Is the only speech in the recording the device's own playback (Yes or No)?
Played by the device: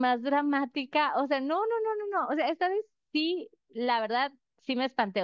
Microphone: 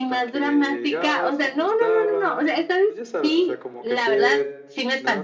No